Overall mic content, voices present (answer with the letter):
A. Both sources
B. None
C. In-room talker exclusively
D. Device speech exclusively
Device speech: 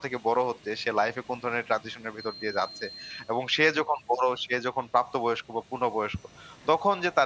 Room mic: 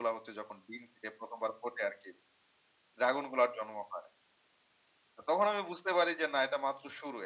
C